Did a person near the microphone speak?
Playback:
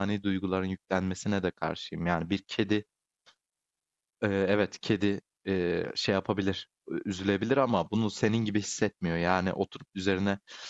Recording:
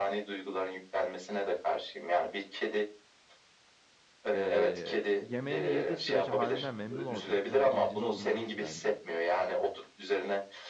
Yes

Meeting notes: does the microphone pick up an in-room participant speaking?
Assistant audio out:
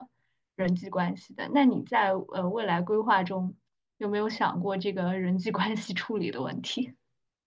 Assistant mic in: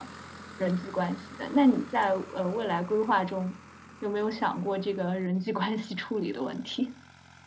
No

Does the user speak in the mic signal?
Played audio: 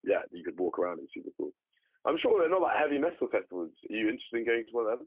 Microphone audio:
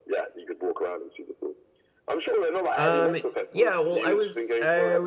Yes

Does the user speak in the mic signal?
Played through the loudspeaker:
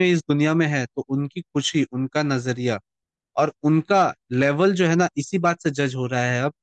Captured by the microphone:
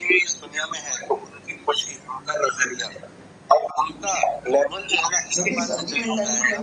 Yes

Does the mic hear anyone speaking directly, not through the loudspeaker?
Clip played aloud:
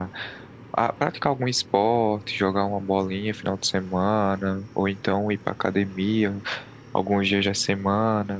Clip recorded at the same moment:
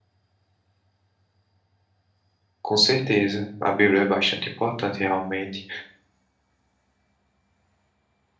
Yes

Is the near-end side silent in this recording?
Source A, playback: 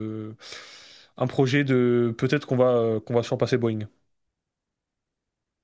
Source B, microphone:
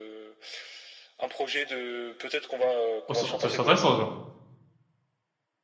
No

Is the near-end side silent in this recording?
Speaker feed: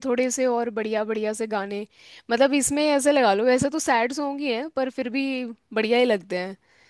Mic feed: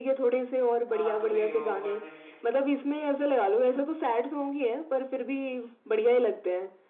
No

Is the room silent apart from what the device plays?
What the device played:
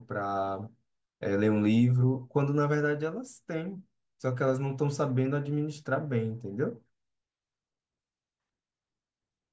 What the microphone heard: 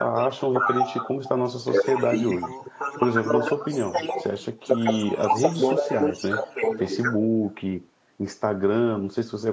No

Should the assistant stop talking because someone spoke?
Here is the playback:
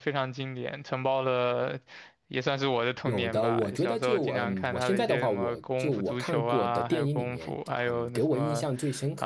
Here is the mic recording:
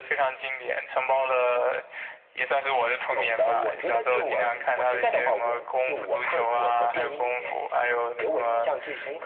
No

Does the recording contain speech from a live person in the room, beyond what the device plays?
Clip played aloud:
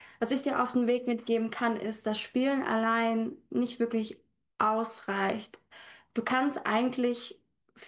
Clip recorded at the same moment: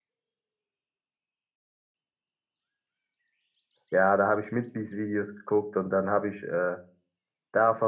Yes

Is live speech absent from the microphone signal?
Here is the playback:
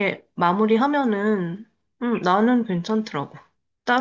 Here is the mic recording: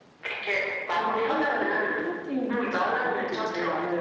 No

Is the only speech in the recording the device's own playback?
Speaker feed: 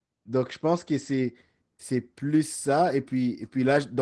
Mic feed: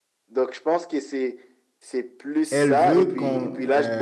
No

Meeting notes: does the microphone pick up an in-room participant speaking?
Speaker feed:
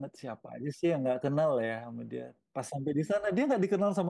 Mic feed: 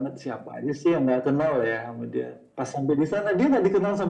No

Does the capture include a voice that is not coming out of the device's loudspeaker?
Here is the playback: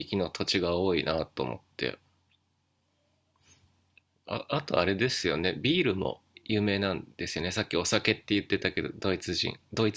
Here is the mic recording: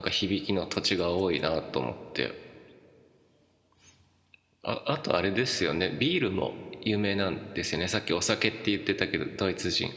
No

